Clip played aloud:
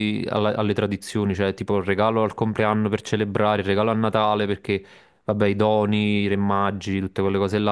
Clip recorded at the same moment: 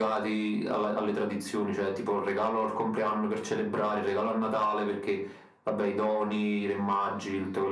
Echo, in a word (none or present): present